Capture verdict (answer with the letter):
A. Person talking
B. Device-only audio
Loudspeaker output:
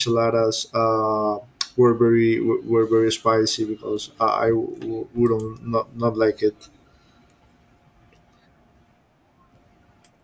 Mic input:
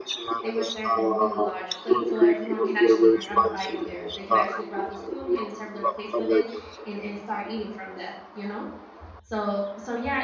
A